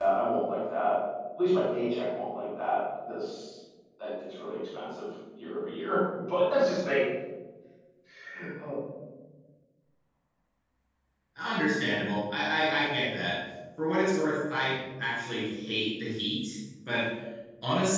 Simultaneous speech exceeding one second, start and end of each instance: none

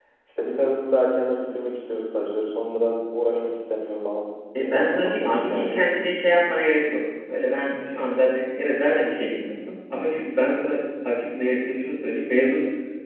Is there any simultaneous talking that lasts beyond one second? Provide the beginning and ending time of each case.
4.6-5.9

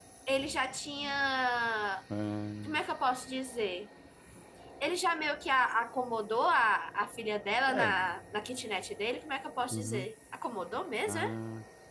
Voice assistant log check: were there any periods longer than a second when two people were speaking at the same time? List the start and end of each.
none

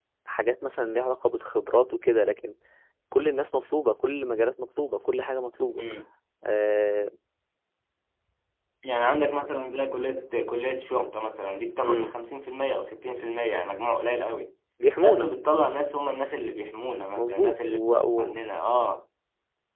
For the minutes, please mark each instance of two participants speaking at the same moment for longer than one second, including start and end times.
17.2-18.4

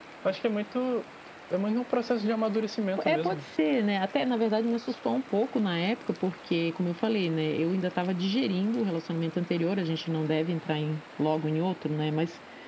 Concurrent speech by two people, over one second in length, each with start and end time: none

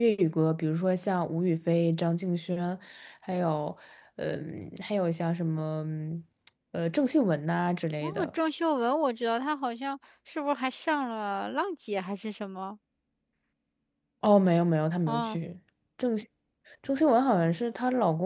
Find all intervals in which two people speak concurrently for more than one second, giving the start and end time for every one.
none

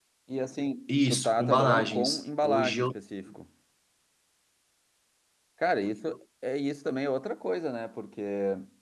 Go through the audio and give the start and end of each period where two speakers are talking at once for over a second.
0.9-2.8

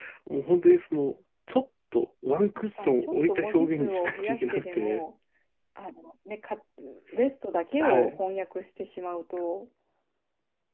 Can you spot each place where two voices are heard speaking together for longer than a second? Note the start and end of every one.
2.6-5.0

